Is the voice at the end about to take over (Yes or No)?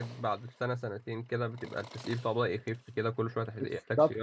Yes